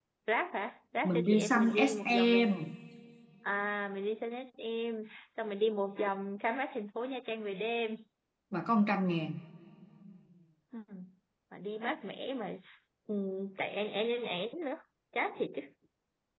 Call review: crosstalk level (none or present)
present